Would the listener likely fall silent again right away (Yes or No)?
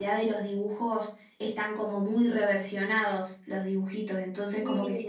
Yes